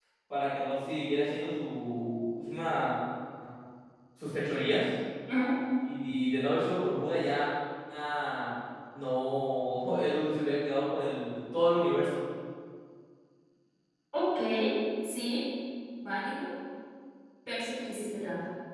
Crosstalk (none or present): none